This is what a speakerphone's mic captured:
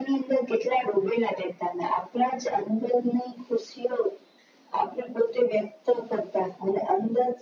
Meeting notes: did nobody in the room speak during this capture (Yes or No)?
Yes